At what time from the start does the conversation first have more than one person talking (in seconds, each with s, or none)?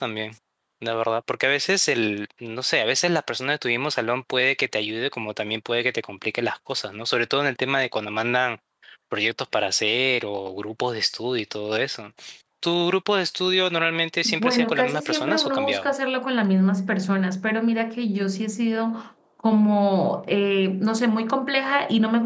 14.2 s